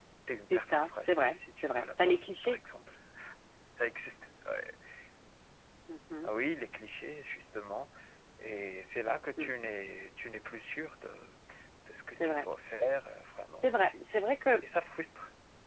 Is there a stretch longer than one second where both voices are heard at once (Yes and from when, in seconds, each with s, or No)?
Yes, from 0.5 s